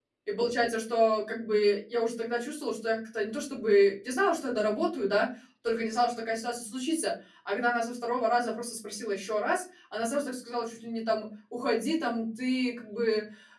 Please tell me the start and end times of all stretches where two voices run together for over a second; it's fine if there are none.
none

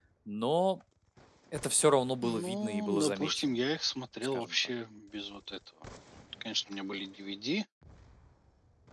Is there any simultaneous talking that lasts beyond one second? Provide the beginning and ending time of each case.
2.2-3.6

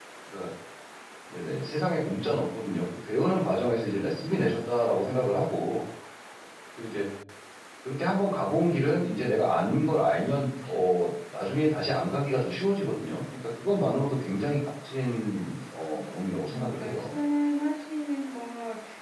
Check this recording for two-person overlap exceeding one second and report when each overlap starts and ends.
15.9-17.1

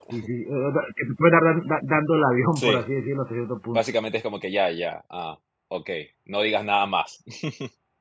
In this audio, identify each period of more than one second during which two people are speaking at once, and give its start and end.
none

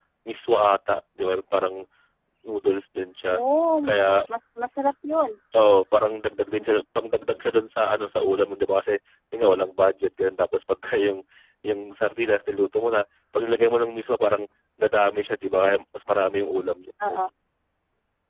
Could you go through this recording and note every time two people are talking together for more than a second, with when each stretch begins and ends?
none

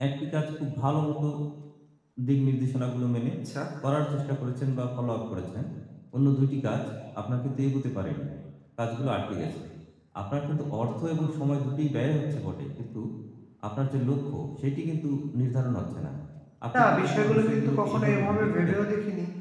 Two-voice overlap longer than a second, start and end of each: 16.8-18.8

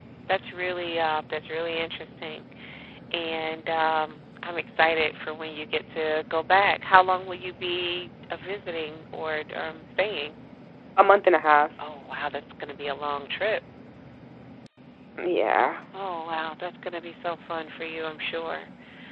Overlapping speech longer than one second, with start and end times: none

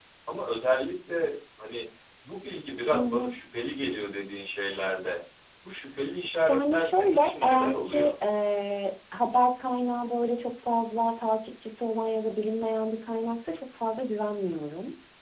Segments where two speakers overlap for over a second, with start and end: 6.5-8.1

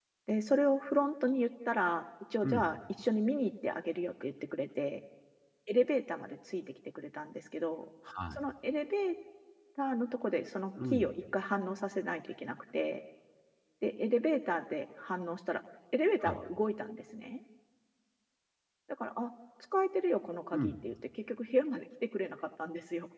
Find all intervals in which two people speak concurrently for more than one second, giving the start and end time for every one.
none

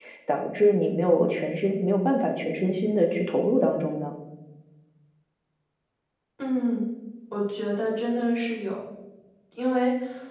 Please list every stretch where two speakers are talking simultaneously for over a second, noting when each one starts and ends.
none

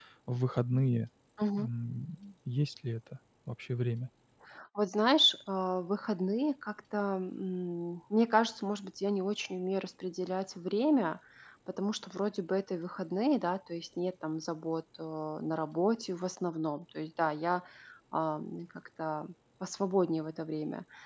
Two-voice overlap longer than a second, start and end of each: none

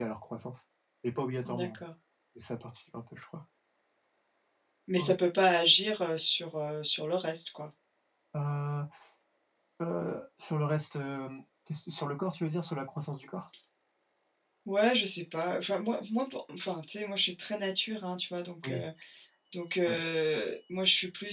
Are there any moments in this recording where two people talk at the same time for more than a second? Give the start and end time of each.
none

